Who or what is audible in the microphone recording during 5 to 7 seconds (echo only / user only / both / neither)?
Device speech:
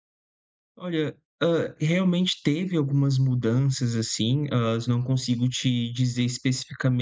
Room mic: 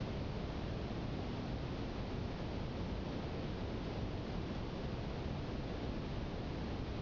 neither